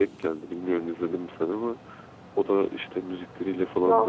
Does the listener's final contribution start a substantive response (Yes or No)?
No